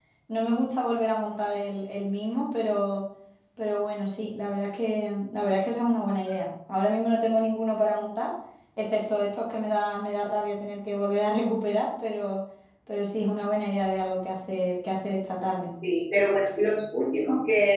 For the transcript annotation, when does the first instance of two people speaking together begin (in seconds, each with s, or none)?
none